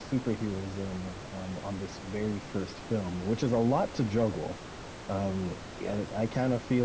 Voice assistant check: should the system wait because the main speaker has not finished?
Yes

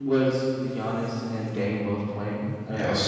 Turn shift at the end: Yes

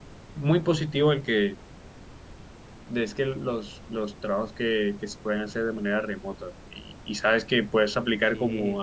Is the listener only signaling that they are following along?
Yes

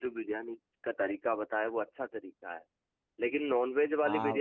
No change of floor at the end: Yes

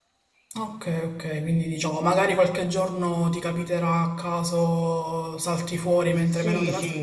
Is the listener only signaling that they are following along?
No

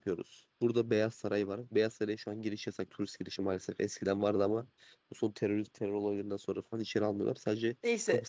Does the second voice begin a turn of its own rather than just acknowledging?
Yes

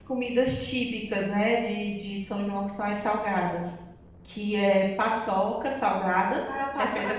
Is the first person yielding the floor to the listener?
Yes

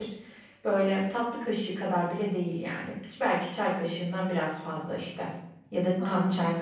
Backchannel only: Yes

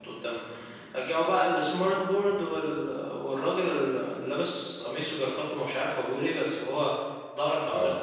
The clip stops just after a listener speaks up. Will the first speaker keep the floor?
Yes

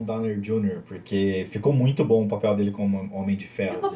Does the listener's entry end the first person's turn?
Yes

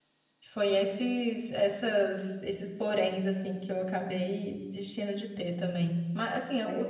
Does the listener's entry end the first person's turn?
No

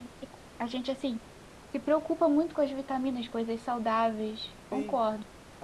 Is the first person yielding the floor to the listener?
Yes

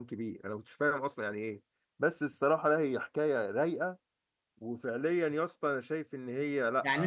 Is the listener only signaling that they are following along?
No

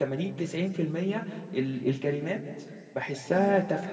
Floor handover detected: Yes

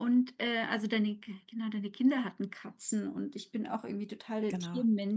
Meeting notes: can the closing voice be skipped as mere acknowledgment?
Yes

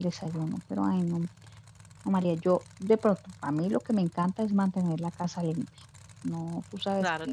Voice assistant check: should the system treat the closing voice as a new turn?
Yes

